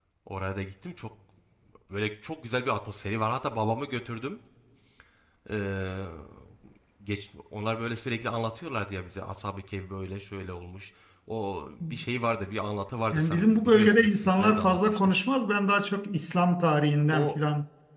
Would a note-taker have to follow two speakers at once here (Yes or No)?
Yes